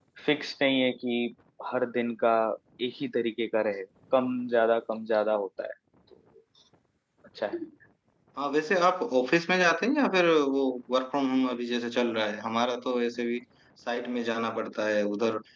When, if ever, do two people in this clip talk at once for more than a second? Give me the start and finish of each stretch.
none

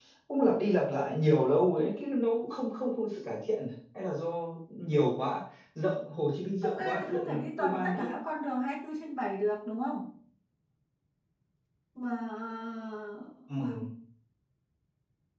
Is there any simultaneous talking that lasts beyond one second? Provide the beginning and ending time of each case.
6.6-8.1

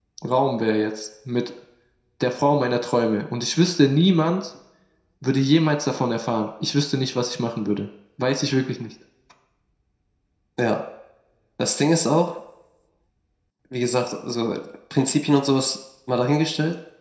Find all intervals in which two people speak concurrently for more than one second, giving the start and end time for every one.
none

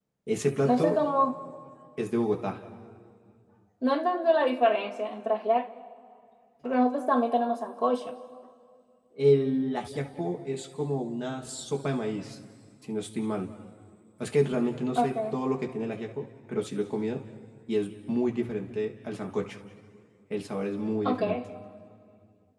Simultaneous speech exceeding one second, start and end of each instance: none

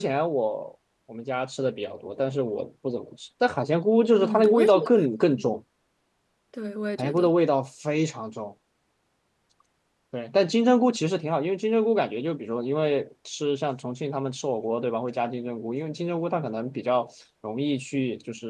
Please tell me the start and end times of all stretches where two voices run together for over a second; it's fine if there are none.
4.2-5.5

